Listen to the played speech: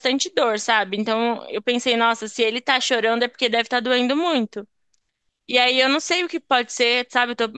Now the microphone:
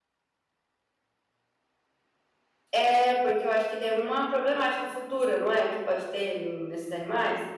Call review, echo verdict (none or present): none